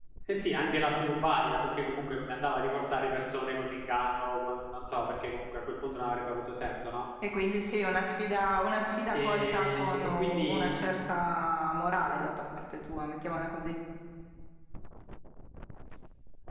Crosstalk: present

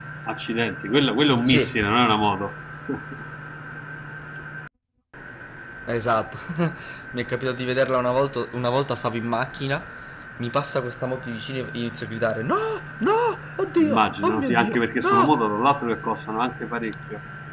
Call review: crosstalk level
present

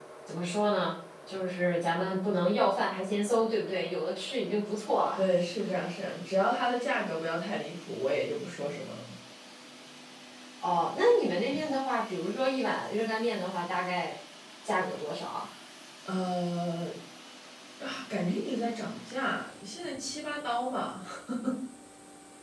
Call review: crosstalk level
none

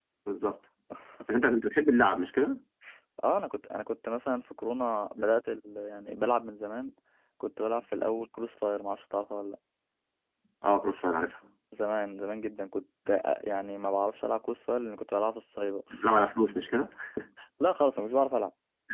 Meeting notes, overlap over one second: none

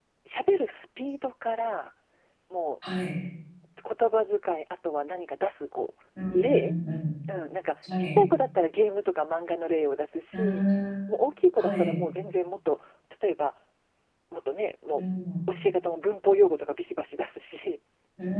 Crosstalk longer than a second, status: none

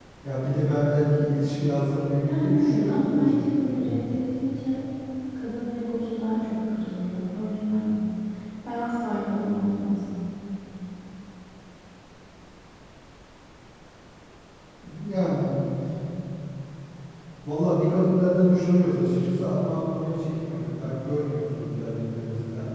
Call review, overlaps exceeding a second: present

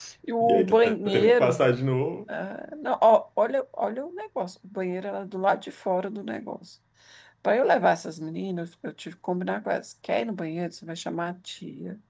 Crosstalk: present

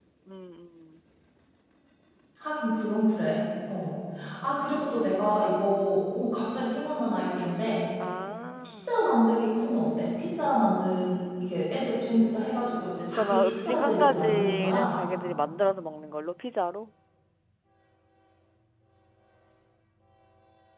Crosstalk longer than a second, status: present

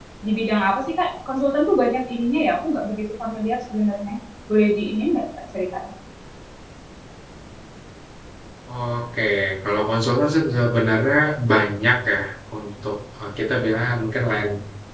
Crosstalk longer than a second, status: none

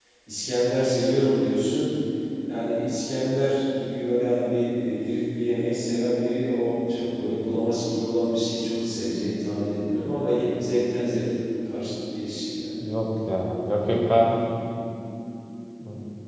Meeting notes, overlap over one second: none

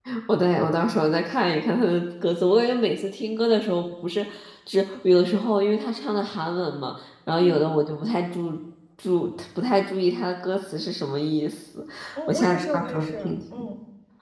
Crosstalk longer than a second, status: present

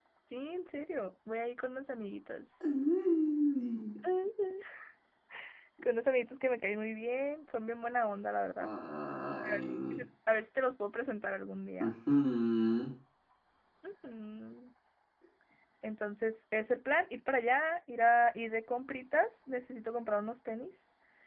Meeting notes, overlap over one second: none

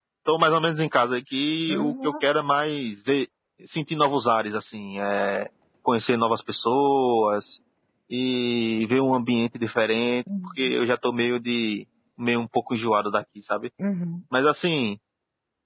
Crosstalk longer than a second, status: none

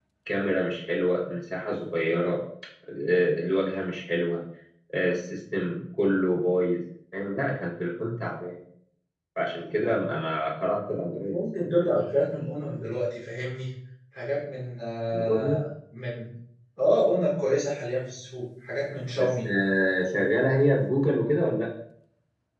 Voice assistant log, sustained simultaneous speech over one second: none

